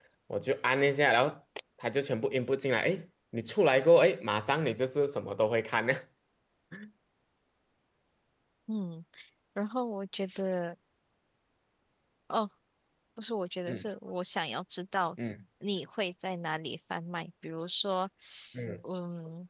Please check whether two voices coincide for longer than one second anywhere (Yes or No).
No